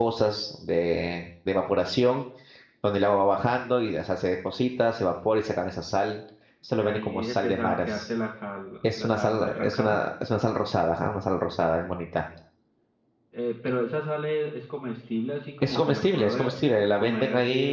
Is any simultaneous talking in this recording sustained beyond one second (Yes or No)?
Yes